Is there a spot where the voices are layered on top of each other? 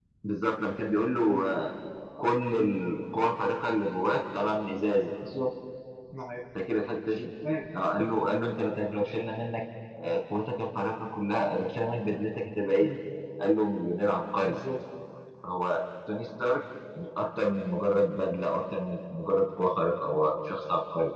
No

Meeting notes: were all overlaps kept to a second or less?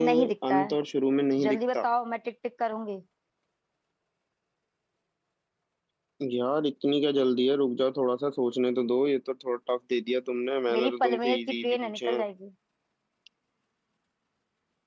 No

